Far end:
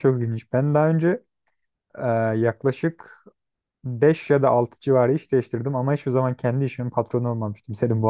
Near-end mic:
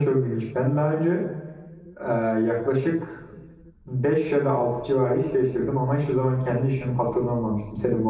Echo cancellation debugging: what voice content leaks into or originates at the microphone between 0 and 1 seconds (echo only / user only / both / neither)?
echo only